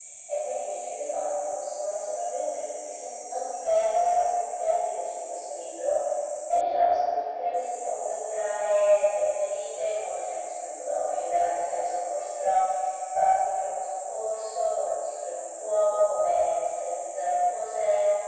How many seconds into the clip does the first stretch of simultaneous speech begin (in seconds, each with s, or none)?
none